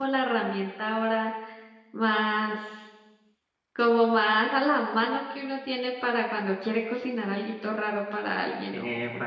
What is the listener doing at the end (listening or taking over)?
listening